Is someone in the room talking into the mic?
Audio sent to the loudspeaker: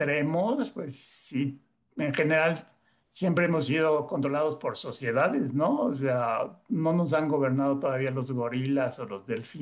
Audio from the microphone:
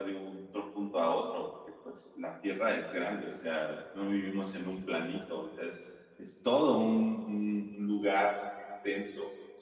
Yes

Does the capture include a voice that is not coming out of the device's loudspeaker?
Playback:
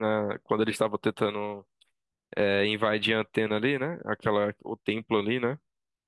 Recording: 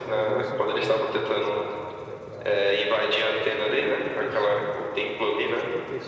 Yes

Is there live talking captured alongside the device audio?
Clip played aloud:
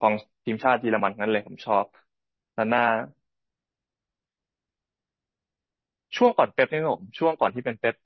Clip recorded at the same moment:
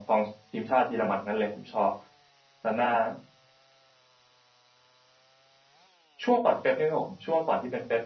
No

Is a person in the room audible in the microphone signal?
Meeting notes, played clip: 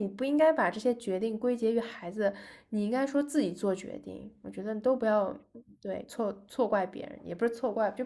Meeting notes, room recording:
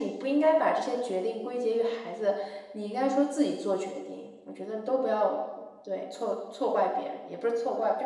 No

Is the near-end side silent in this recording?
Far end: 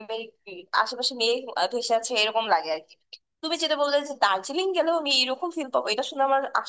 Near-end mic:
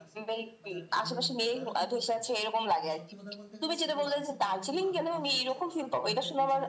No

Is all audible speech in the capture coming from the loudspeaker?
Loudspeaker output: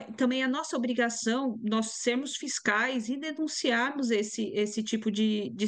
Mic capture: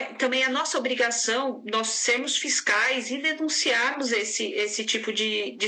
Yes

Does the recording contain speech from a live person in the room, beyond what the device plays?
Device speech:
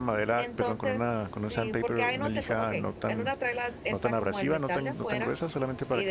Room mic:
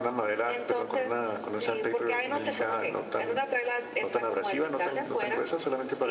No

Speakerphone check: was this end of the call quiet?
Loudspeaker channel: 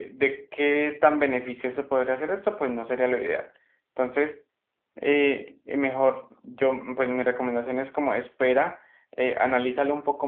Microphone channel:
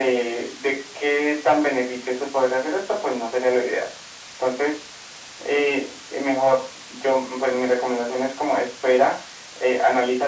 Yes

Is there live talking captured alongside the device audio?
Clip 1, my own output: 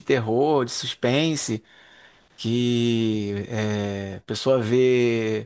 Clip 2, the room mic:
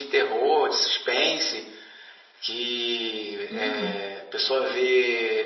Yes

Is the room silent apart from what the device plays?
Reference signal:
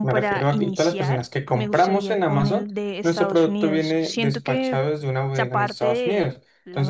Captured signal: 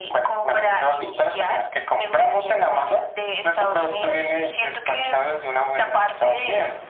Yes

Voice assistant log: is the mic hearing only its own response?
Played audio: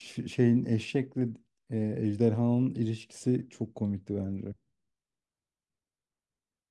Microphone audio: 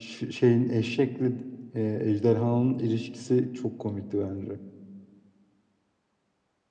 Yes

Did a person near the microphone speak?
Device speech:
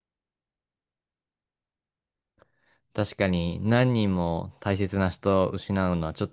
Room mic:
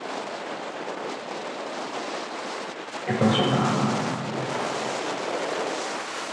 Yes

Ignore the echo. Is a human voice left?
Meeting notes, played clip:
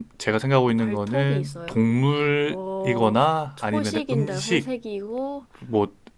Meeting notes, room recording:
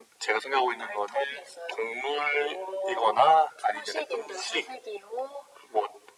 No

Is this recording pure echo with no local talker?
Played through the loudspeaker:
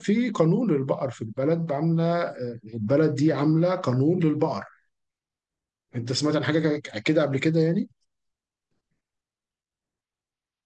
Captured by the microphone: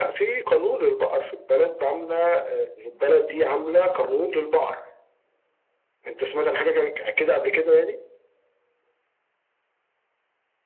Yes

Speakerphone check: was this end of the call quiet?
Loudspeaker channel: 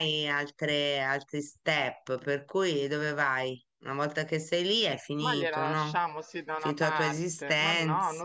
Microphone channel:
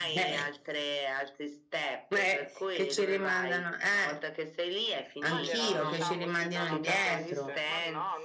No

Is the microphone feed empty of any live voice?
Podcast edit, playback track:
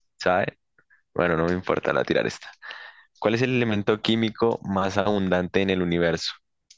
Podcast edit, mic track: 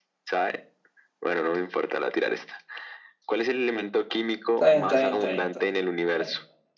No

